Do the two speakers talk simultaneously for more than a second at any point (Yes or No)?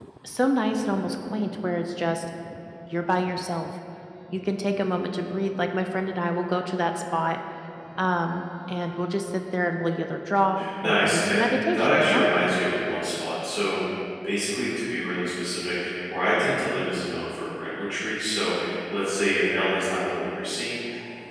Yes